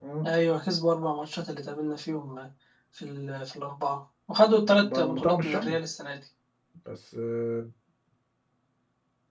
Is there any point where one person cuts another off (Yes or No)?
Yes